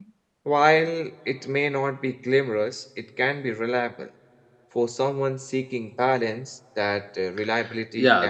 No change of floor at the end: No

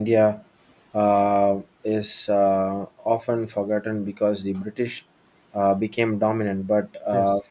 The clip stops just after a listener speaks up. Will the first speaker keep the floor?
Yes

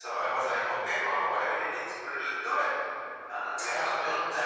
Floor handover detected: No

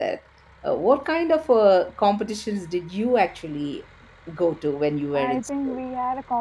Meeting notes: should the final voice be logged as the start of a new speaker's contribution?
Yes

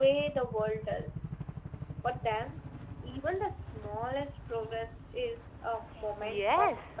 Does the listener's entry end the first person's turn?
Yes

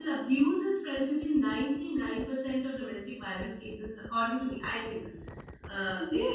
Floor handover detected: Yes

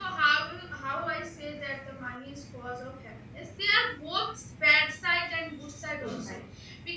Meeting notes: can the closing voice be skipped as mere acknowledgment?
Yes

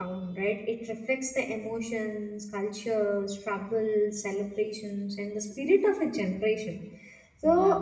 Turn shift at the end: No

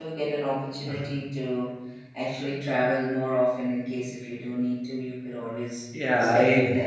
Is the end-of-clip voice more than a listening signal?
Yes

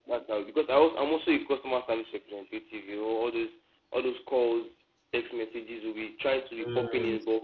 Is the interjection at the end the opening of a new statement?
No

